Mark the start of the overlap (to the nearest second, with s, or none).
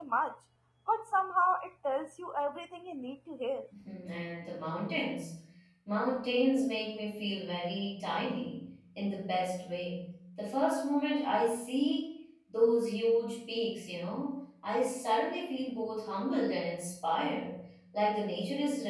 none